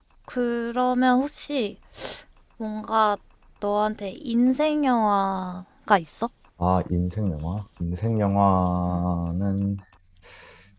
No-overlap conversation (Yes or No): Yes